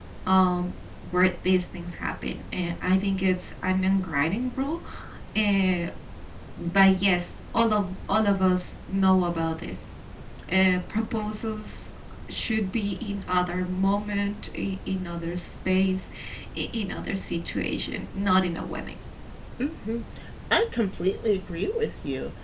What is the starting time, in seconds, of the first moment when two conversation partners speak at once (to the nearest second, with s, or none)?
none